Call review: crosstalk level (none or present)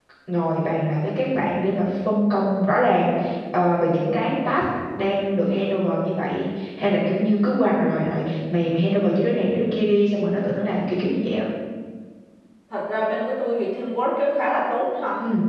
none